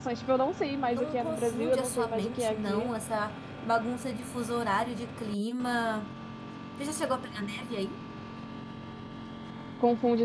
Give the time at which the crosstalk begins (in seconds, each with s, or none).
0.9 s